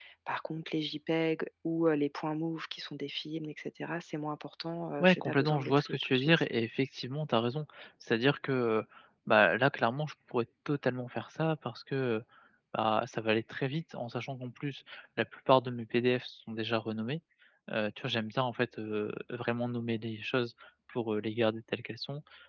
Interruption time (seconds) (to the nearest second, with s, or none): 5 s